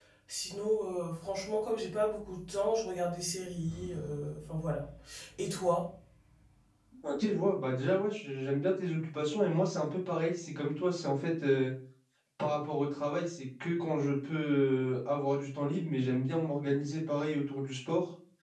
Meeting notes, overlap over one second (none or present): none